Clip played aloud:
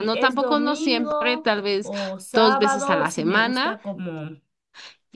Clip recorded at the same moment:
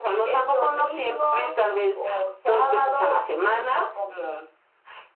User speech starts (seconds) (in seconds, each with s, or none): none